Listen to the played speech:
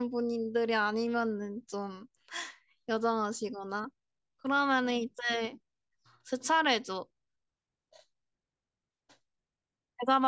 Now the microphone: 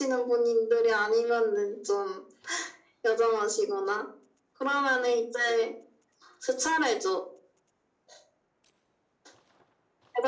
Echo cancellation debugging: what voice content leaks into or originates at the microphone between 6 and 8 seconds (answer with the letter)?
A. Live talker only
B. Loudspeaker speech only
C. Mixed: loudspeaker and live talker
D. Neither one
B